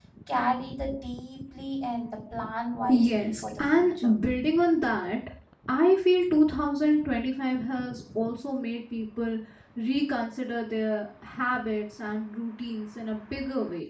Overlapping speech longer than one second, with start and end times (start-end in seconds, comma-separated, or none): 2.9-4.2